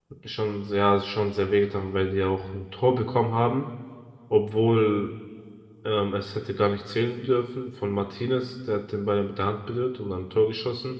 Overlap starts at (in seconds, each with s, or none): none